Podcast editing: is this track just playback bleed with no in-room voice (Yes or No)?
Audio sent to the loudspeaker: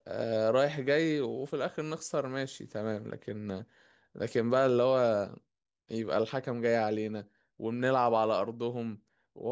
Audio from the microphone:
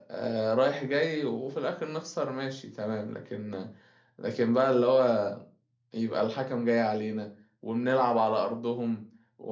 Yes